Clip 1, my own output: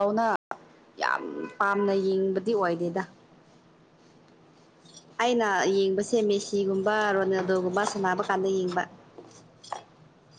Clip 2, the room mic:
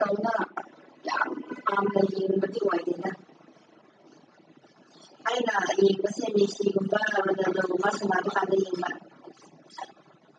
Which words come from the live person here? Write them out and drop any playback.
none

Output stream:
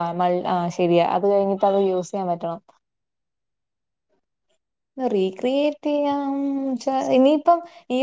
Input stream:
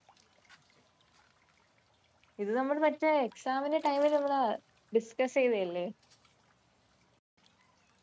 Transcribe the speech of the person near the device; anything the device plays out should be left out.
ഇത് നമ്മള് മറ്റേ എക്സാമിന് ടൈമില് നമ്മള് ഡിസ്കസ് ചെയ്തയല്ലേ?

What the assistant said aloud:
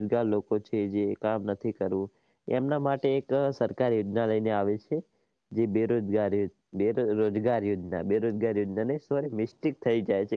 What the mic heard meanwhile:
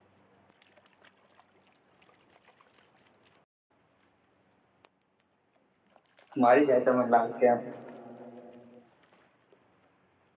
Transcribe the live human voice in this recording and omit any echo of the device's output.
મારી જાય તમને લાગે છે

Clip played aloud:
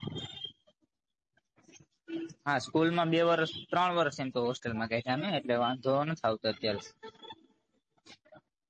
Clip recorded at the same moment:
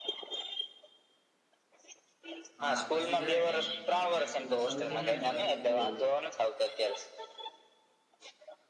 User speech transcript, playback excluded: હા, પછી જરાય ટાઈમ નહી મળે. પ્રેક્ટિકલ શરૂ થઇ જાયને પછી તો બઉ.

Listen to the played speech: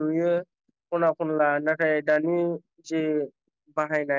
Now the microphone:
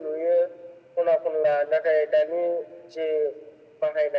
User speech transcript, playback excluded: none

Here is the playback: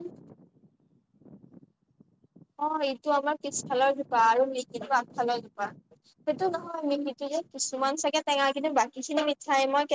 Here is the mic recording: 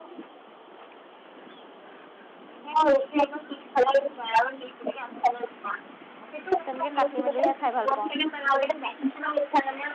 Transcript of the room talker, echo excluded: তেনেকে কাটি মেলিহে, খাই ভাল পাওঁ।

